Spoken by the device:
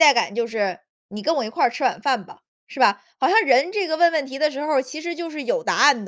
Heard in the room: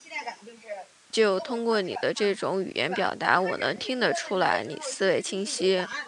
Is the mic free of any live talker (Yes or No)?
No